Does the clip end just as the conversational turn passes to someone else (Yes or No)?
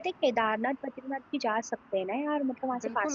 Yes